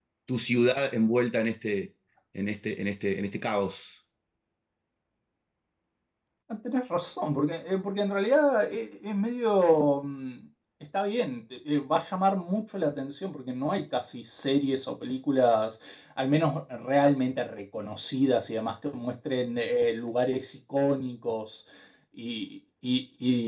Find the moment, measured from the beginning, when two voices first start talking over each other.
none

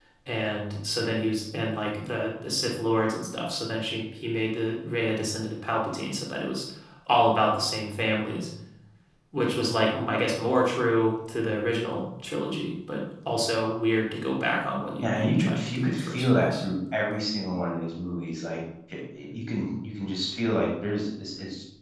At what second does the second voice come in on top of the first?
15.0 s

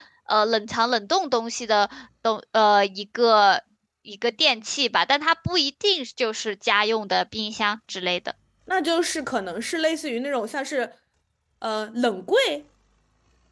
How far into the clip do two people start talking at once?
none

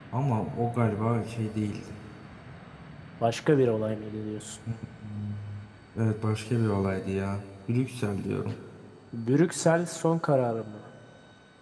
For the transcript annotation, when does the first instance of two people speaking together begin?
none

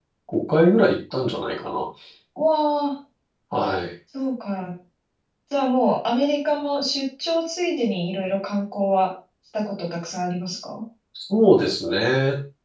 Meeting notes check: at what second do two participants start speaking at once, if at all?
none

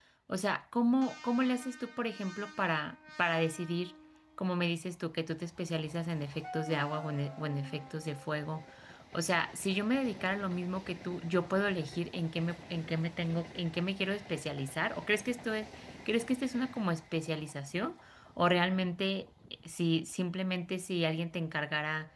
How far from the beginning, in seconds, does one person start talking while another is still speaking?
none

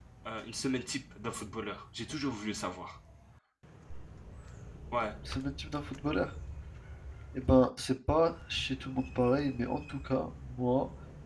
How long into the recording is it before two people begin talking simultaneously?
none

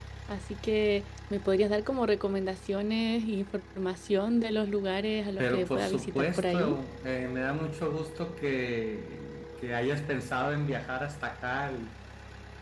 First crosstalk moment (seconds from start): 5.4 s

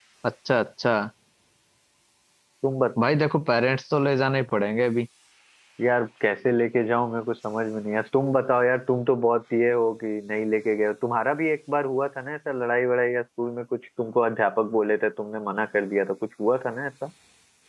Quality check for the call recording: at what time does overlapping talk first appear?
none

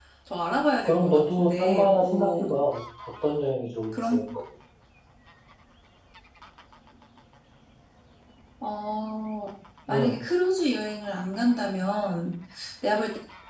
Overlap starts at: 0.8 s

